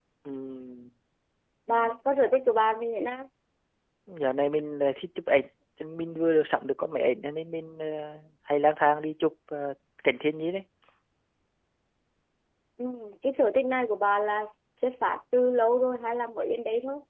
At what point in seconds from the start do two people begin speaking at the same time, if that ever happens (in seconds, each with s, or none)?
none